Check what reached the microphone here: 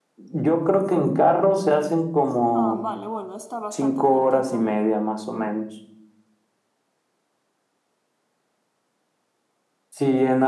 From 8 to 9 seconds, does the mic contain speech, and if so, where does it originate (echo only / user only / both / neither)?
neither